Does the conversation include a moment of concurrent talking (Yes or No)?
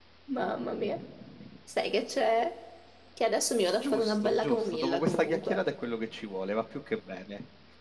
Yes